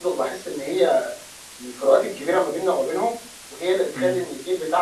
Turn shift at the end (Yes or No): No